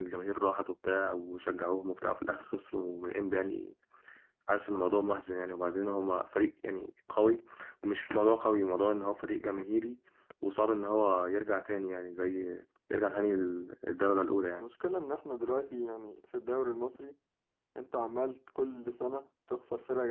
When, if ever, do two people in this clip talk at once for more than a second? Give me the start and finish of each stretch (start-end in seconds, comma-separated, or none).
none